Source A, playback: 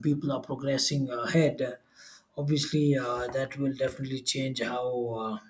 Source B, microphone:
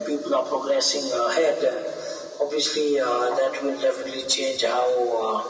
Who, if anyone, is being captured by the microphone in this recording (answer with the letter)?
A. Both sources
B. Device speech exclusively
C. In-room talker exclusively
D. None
B